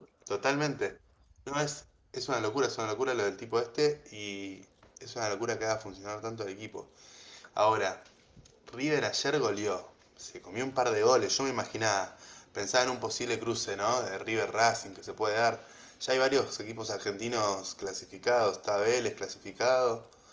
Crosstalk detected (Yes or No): No